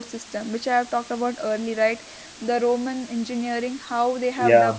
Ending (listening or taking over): listening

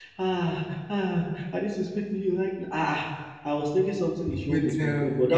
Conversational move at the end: listening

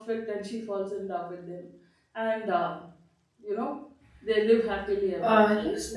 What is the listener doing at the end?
taking over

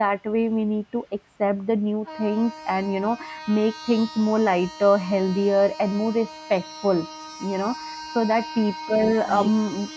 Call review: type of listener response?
listening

